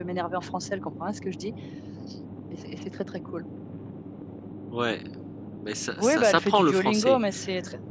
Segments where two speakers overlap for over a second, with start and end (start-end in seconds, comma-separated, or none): 6.0-7.2